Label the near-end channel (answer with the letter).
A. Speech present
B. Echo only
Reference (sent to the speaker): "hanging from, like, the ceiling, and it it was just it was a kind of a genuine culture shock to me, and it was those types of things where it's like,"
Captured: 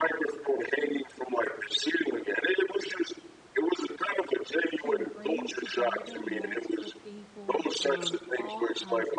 A